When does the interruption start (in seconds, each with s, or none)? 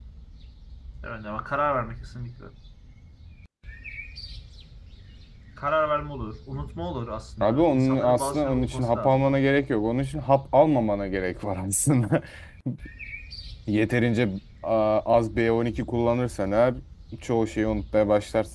7.4 s